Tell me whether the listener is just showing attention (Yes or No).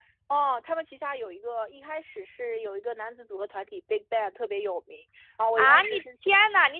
No